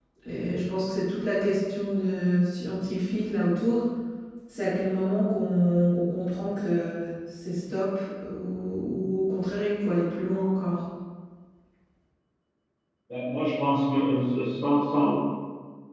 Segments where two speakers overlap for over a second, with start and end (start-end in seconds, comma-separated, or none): none